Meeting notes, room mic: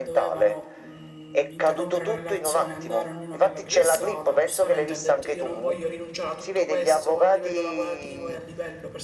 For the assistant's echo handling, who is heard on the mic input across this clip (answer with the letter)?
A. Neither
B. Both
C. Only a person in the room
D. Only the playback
B